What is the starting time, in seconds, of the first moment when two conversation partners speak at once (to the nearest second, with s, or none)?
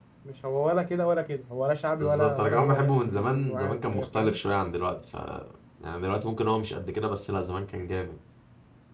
2 s